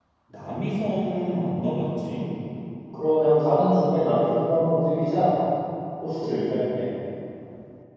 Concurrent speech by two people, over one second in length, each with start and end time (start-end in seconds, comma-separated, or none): none